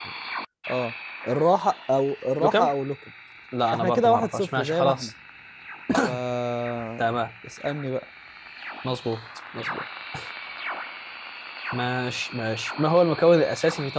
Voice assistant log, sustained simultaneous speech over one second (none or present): present